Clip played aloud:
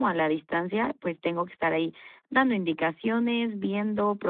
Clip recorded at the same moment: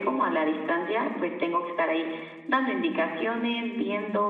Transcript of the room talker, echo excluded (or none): none